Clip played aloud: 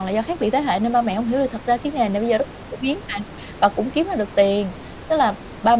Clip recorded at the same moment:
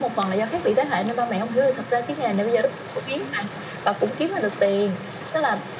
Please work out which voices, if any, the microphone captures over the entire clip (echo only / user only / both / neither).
echo only